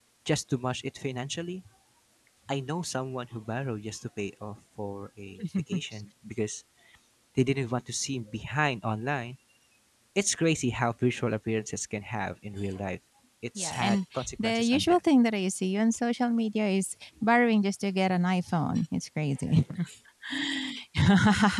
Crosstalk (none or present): present